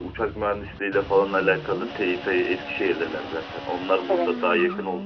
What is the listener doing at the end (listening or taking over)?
listening